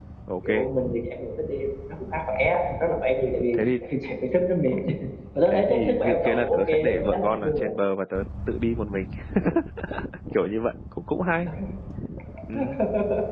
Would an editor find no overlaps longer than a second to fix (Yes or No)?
No